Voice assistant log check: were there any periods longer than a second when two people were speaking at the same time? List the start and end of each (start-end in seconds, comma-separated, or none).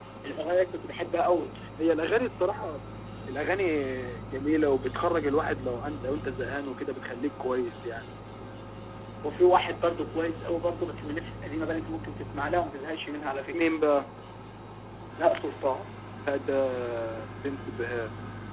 none